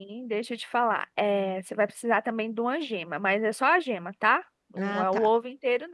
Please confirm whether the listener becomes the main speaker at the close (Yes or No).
No